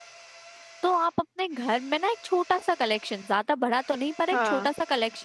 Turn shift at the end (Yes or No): No